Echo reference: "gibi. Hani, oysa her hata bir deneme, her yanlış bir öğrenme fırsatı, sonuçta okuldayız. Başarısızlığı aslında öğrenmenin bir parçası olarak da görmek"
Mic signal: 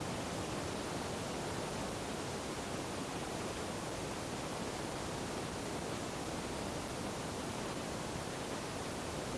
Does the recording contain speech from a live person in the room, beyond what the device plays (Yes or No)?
No